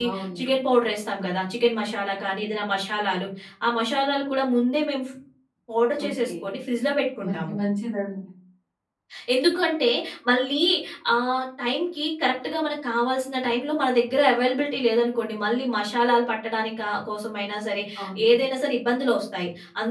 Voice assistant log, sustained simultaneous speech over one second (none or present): none